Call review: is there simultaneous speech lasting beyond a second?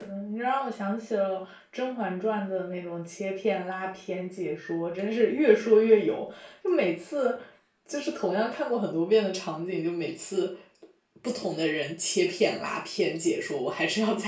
No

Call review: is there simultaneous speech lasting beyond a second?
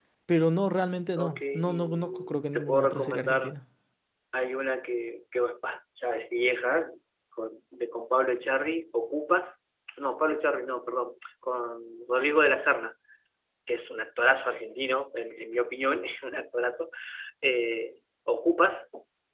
Yes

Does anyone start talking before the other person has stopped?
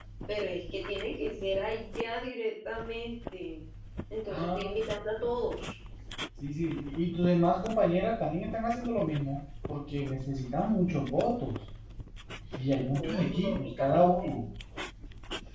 Yes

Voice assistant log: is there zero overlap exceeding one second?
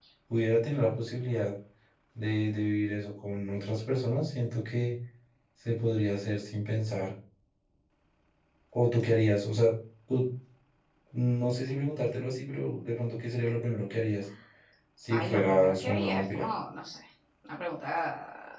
No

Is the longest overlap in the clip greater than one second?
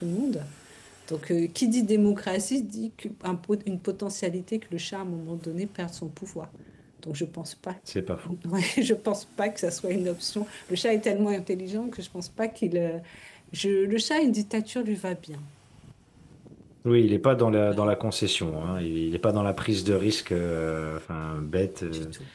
No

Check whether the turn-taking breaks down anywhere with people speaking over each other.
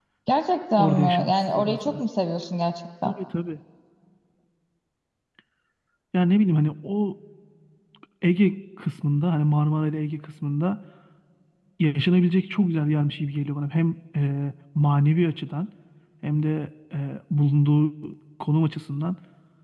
Yes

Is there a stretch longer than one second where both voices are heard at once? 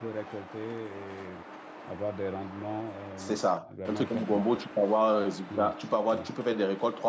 Yes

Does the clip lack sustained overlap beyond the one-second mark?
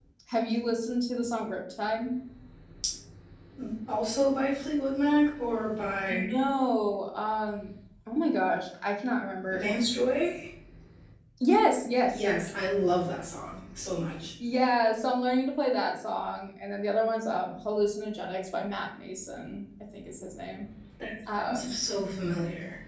Yes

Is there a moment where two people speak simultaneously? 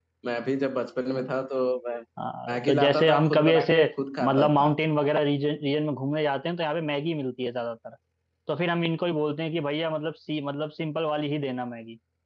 Yes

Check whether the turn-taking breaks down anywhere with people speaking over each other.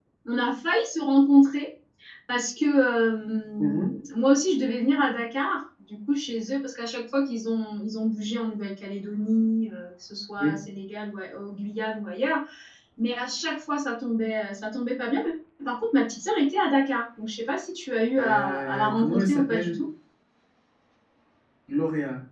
Yes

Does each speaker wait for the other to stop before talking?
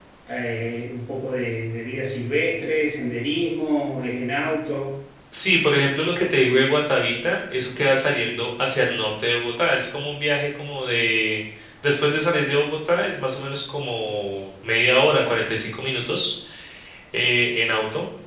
Yes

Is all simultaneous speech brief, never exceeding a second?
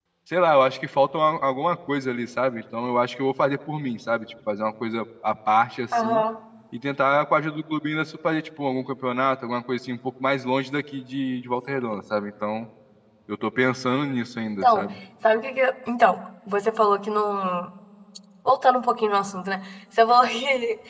Yes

